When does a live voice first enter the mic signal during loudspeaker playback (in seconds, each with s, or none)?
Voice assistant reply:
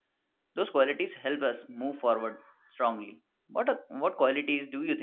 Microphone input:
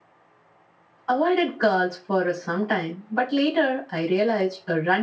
1.0 s